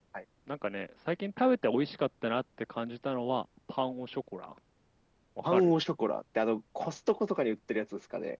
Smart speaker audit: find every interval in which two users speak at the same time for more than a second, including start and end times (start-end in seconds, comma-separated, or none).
none